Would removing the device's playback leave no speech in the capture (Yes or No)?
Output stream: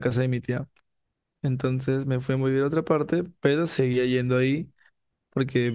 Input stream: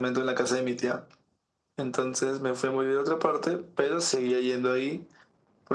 Yes